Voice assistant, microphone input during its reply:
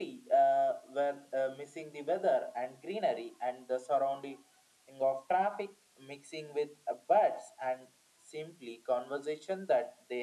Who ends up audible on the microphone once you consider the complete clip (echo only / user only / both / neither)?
echo only